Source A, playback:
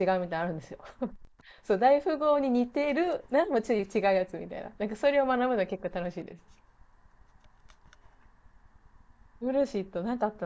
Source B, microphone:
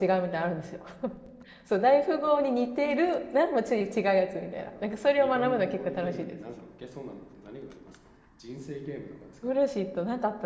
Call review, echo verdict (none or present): present